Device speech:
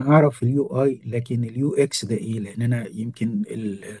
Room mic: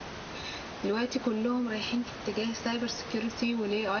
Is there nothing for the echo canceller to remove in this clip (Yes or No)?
Yes